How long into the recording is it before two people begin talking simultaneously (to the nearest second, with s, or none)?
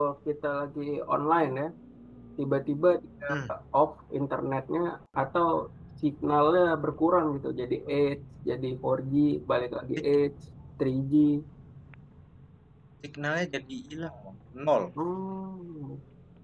none